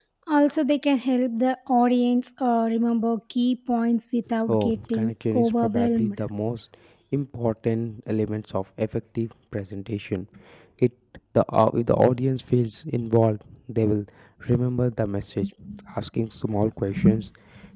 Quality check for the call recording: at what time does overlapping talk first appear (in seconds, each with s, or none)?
4.5 s